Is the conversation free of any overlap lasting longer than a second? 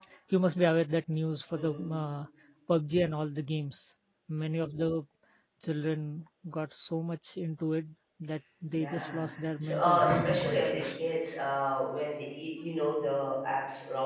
No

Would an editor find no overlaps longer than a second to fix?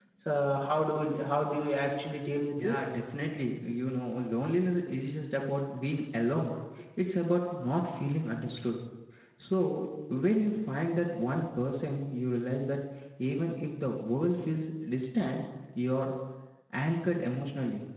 Yes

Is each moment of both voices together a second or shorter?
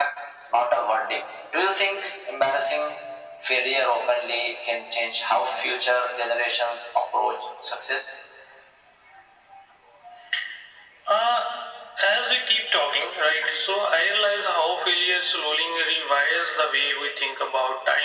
Yes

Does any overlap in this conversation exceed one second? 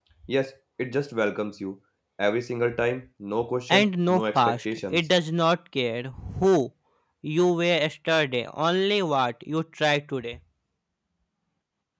Yes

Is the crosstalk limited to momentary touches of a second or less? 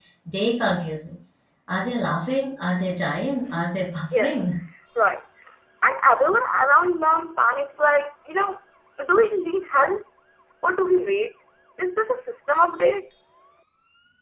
Yes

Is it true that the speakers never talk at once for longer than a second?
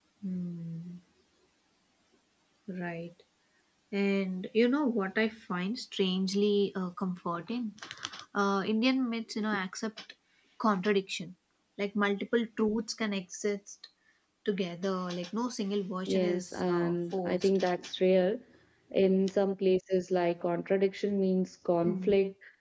No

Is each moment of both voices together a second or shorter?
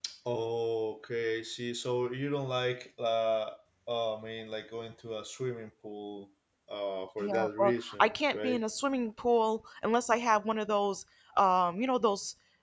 No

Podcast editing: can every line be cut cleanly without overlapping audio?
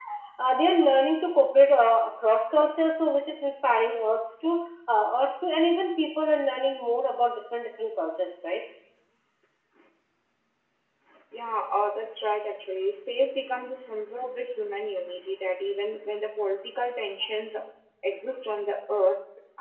Yes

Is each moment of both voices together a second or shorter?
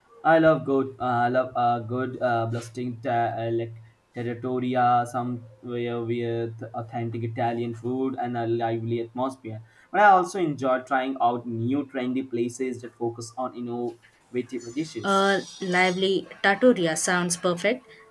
Yes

